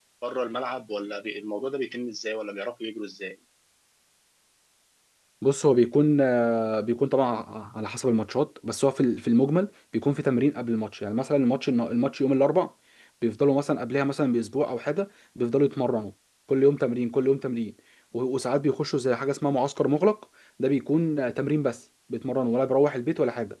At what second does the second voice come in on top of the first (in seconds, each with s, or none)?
none